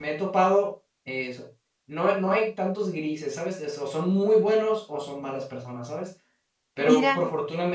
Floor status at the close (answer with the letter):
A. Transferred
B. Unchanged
B